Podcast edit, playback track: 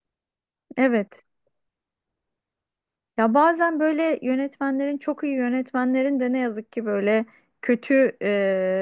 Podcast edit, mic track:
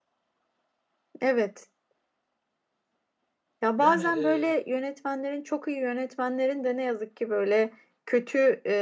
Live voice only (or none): Yani e,